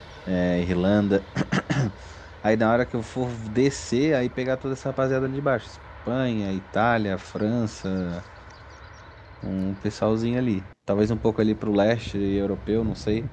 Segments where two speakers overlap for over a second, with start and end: none

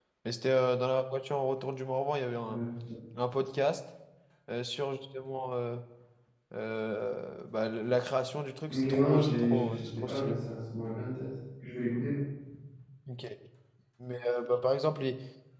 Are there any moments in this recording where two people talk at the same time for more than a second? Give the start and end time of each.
8.7-10.4

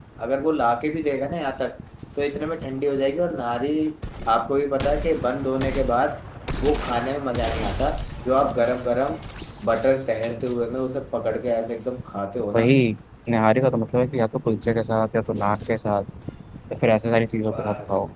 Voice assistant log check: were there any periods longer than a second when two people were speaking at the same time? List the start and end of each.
none

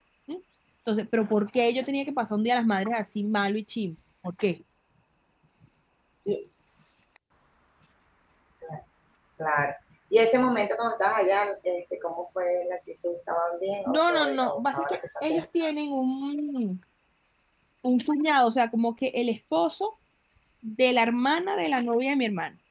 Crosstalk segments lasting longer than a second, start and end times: 13.9-15.7

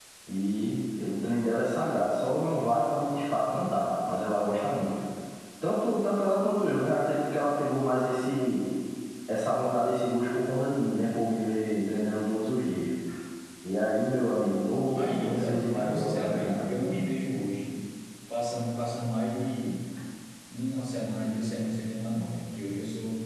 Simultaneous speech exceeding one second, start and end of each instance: 14.9-16.6

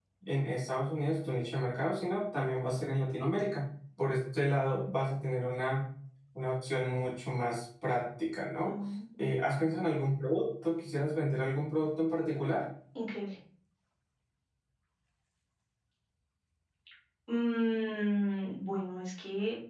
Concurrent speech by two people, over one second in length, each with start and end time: none

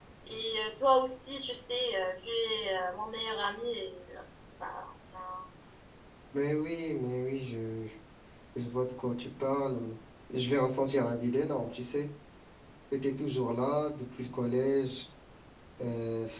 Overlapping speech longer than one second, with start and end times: none

